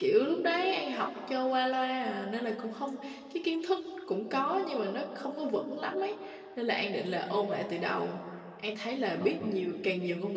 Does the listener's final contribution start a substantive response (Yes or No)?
No